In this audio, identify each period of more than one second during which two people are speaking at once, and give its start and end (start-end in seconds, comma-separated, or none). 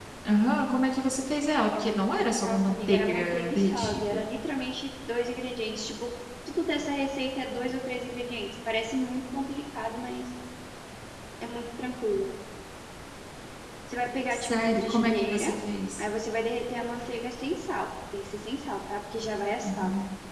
2.4-4.2, 14.3-15.5